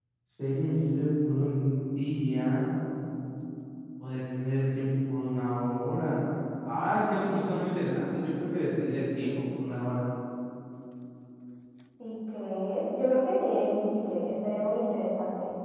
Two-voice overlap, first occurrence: none

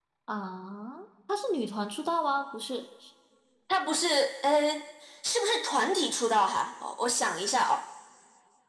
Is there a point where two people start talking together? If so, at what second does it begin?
none

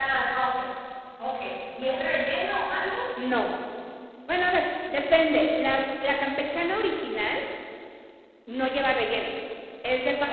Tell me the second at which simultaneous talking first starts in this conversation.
none

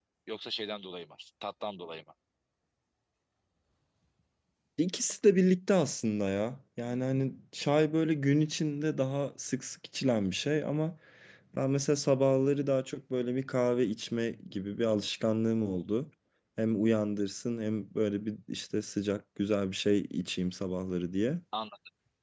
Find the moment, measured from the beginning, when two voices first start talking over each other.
none

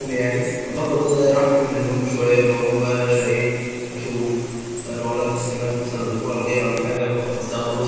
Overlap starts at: none

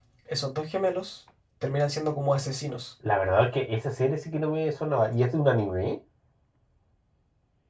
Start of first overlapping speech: none

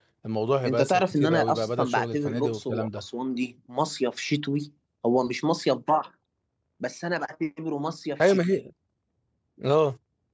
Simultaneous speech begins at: 0.7 s

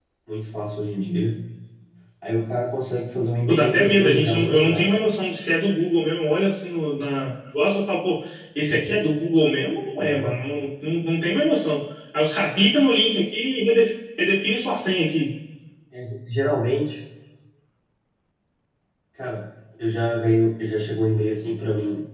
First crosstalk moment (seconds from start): 3.5 s

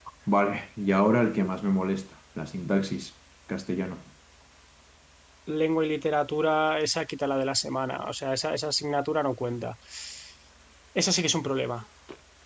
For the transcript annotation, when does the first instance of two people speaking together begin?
none

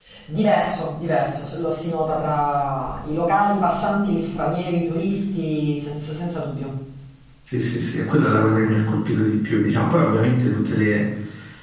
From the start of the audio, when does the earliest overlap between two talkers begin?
none

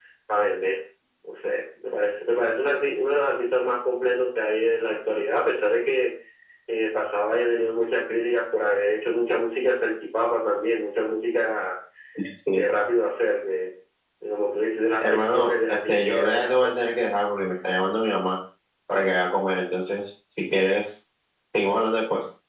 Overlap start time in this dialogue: 15.0 s

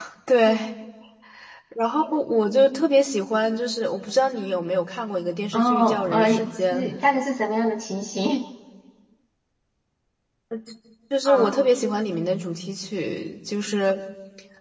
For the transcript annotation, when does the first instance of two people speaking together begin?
5.5 s

